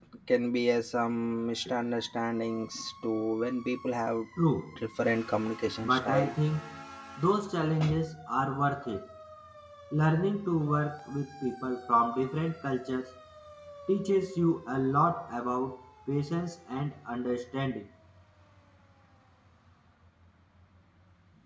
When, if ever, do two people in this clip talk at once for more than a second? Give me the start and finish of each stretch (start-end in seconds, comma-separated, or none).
none